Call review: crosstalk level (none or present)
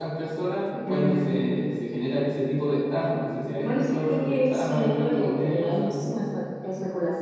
present